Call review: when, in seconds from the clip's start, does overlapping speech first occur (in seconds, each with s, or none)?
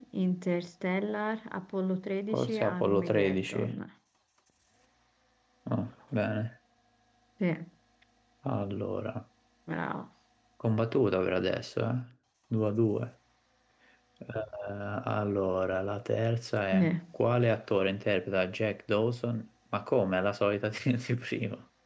2.3 s